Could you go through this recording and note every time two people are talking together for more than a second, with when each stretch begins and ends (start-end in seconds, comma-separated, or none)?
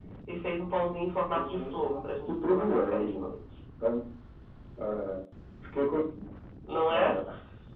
1.5-3.2